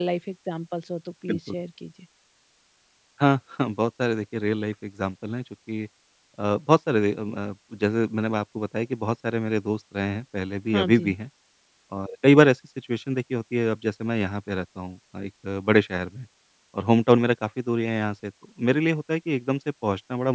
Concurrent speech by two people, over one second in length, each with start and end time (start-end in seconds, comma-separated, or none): none